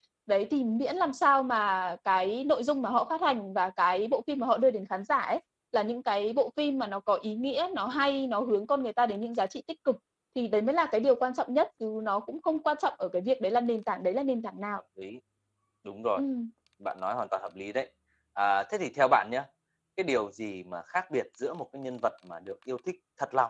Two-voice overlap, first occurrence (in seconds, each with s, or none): none